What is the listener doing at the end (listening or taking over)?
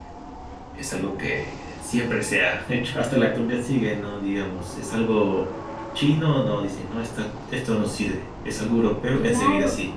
taking over